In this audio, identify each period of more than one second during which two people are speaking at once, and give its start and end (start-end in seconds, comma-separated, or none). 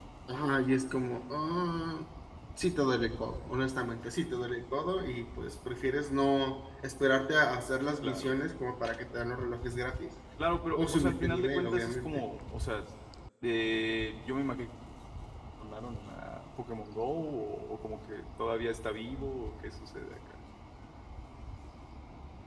10.8-12.2